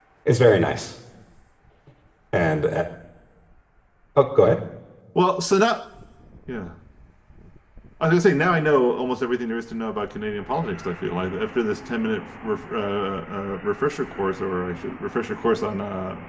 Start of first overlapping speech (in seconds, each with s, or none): none